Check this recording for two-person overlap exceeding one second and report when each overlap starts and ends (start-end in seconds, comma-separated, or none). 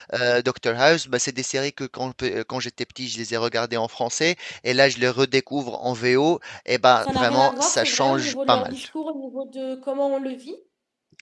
7.0-8.8